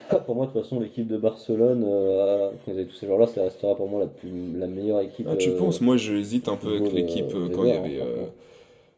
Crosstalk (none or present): present